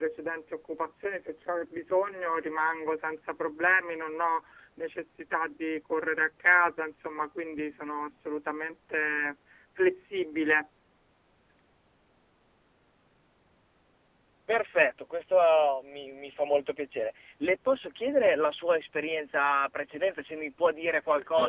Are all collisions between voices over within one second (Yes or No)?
Yes